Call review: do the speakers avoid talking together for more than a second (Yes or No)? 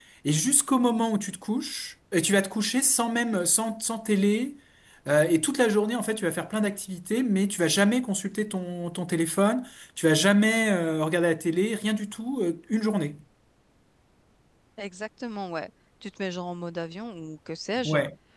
Yes